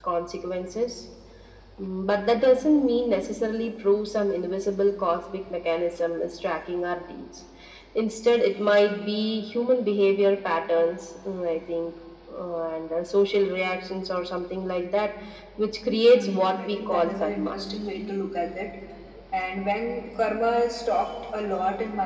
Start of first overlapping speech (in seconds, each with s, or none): 15.9 s